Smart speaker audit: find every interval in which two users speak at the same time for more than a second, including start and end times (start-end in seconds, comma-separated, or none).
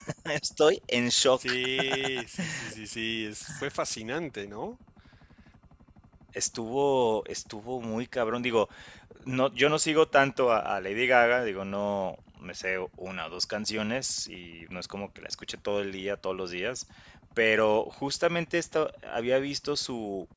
none